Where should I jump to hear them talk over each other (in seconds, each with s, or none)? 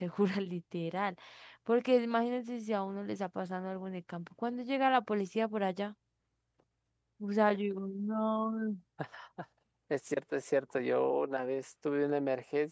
none